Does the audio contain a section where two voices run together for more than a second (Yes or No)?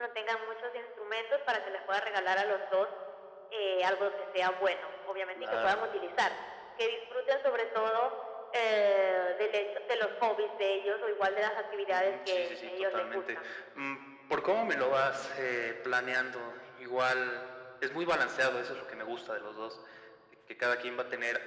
Yes